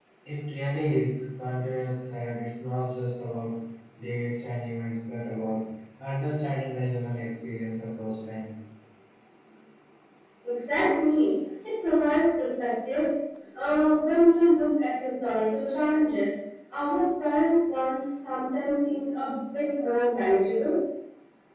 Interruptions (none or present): none